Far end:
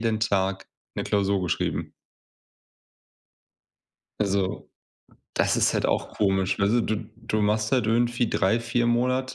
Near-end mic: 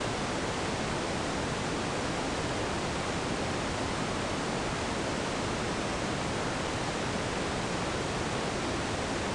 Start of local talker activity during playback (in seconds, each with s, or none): none